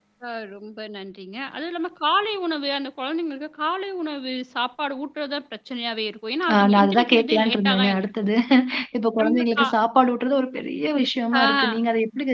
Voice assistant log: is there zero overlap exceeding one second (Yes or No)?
No